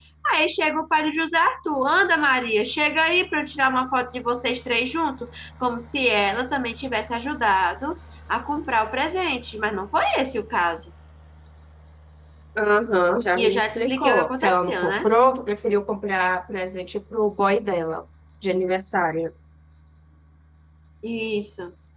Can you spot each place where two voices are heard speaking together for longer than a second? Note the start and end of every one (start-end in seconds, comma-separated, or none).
13.3-15.1